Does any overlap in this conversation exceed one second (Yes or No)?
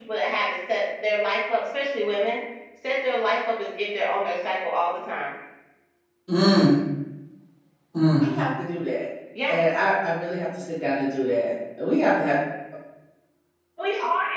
No